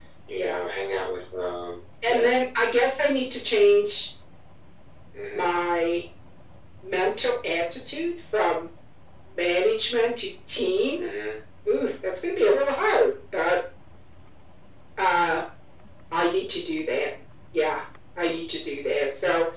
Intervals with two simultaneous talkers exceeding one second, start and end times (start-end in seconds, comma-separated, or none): none